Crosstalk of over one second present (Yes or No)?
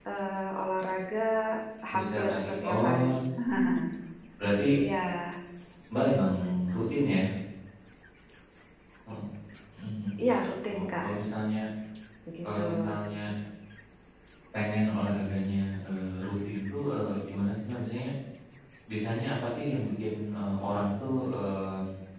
Yes